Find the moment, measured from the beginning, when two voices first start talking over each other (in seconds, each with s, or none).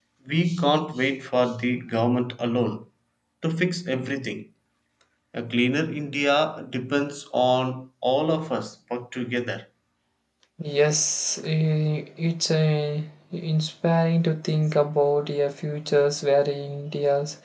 none